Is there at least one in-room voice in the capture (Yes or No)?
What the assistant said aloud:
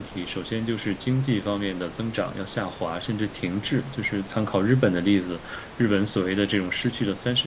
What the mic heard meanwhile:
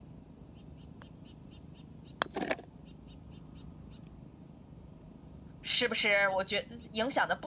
Yes